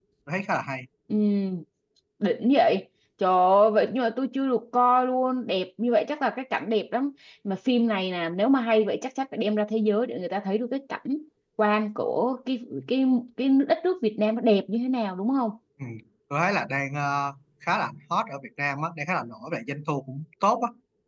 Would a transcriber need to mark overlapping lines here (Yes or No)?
No